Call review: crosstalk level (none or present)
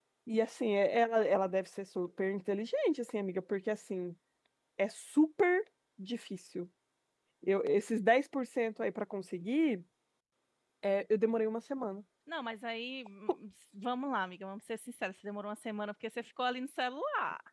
none